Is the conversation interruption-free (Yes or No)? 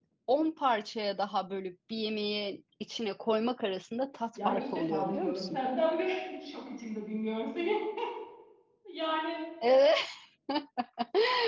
No